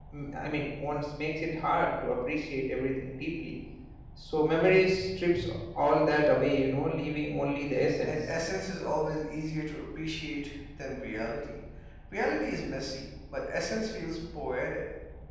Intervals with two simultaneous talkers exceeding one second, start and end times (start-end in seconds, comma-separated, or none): none